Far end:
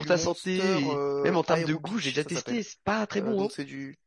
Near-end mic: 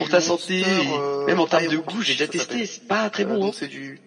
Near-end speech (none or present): none